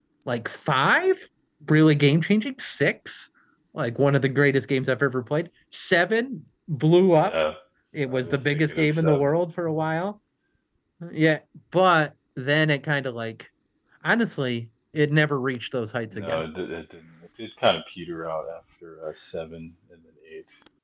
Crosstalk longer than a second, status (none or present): present